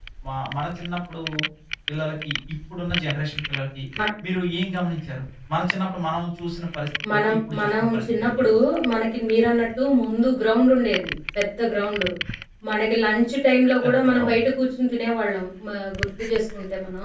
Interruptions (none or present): present